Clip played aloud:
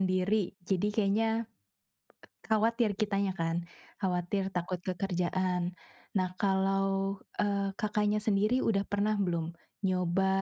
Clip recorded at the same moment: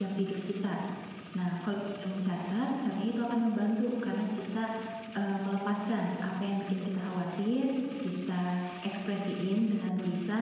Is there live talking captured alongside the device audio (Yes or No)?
Yes